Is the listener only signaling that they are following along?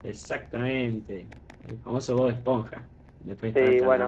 No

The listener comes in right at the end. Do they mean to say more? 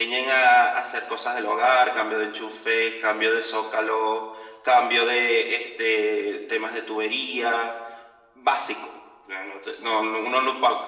No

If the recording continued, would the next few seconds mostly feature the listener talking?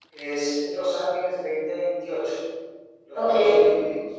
No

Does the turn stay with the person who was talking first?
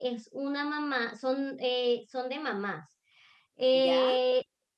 Yes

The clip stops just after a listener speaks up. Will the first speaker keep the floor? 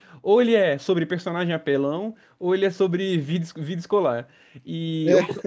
Yes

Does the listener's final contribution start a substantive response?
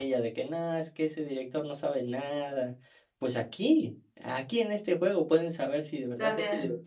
No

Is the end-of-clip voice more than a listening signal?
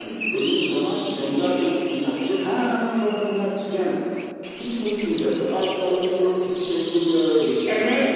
Yes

